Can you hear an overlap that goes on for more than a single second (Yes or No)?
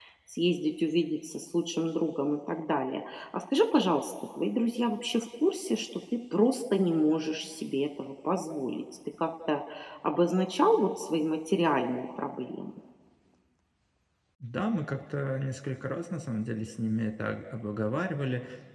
No